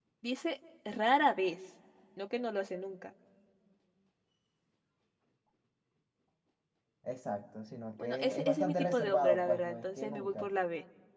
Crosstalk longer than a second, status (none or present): present